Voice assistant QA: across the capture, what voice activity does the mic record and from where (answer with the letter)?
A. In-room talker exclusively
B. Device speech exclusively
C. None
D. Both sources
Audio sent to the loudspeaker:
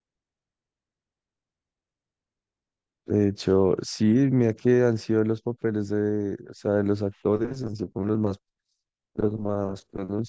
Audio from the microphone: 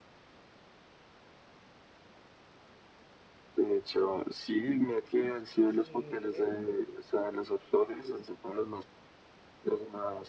D